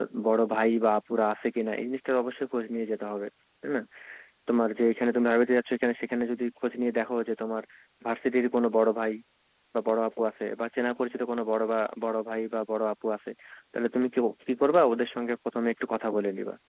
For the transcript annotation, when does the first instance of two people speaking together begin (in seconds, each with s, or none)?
none